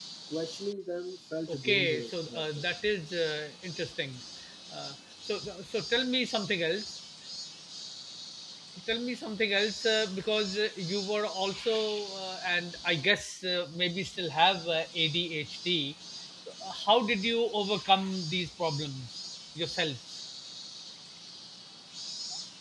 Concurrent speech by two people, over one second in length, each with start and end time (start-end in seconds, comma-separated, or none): 1.5-2.7